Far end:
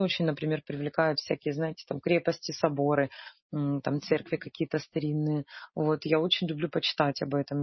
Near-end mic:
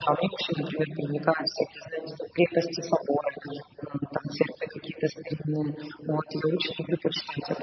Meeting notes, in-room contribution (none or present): none